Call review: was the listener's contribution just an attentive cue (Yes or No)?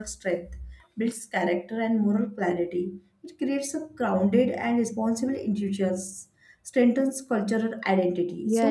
No